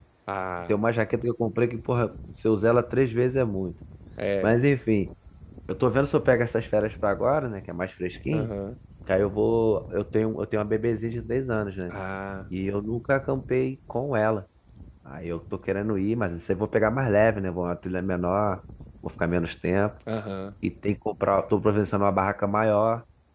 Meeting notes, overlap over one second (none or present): none